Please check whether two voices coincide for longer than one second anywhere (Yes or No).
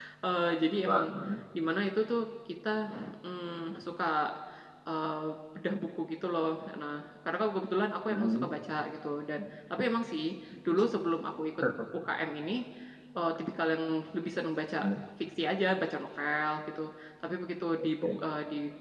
No